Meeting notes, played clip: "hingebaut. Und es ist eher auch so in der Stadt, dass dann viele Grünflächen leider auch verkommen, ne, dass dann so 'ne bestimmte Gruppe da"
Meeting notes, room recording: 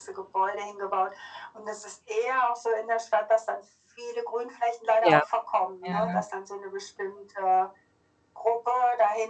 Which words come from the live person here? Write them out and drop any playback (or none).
Ja. Ja, ja.